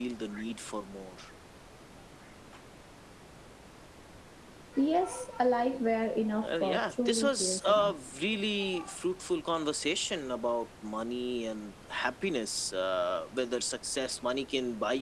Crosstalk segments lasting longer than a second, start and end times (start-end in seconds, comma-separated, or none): 6.4-8.0